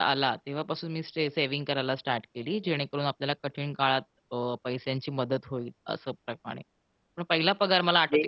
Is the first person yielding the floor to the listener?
No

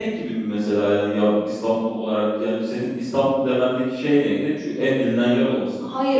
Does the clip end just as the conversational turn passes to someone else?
Yes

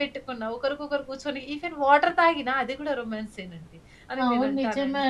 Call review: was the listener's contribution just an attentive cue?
No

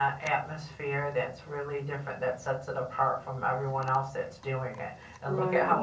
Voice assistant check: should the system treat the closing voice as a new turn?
No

